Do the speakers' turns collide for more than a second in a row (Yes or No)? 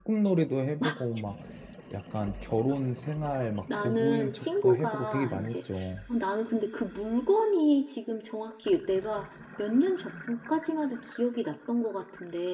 Yes